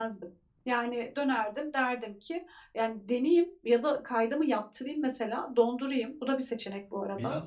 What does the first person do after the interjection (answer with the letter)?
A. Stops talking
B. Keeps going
A